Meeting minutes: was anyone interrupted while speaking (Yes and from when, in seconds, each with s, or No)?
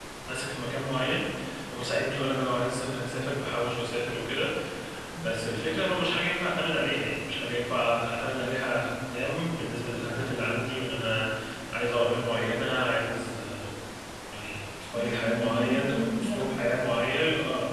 Yes, from 14.9 s